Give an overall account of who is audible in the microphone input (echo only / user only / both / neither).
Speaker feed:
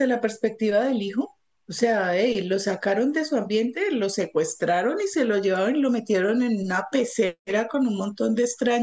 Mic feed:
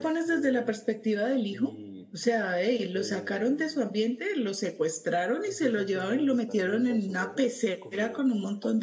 both